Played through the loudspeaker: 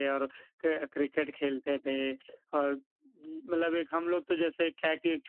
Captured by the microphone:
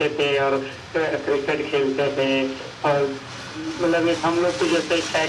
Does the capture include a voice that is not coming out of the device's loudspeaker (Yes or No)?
No